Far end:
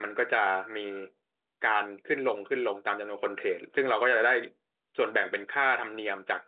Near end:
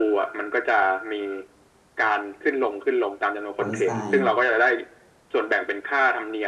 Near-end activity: present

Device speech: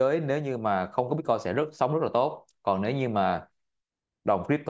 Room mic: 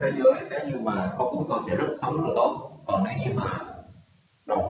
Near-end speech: none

